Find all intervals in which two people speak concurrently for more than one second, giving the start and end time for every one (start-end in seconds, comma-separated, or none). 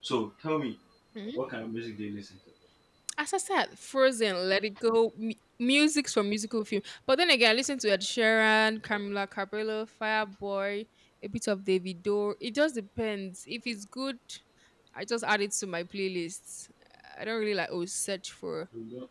none